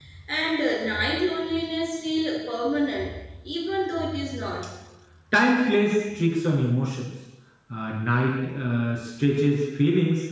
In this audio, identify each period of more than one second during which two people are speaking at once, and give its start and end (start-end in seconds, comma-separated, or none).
none